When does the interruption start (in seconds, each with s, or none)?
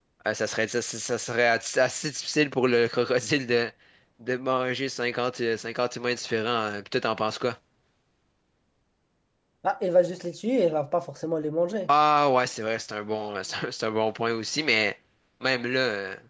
none